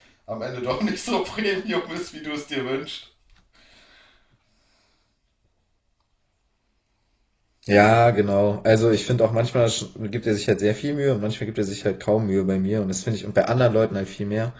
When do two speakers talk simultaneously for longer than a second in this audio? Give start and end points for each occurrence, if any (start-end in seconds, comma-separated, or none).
none